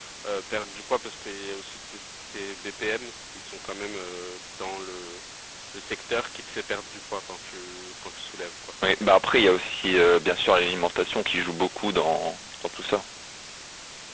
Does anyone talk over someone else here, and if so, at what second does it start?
none

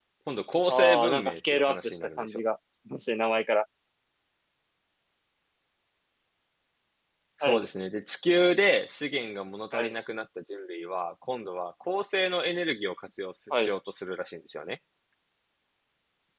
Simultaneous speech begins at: 1 s

